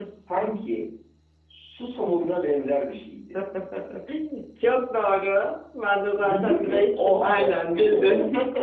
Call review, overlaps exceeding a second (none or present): present